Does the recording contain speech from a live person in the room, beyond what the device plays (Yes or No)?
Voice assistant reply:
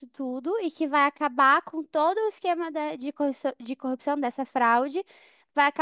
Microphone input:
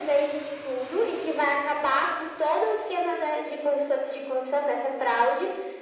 No